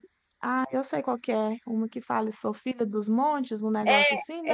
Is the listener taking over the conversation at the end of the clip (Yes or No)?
Yes